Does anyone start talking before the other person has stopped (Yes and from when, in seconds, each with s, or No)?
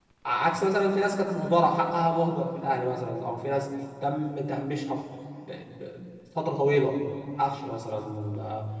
No